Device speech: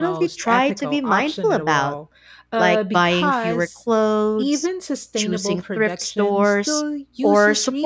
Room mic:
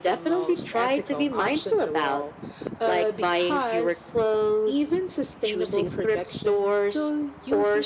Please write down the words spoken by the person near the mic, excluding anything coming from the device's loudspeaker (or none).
none